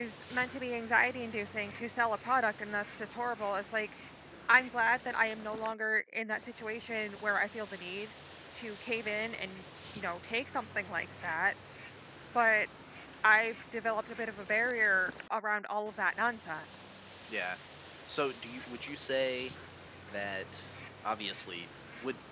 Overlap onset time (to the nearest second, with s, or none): none